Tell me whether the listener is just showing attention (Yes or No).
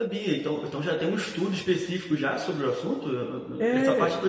No